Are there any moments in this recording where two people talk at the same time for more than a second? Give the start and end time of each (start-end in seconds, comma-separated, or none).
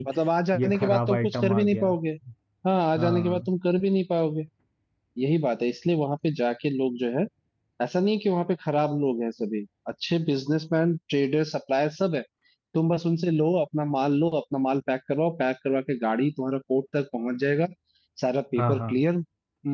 0.6-1.9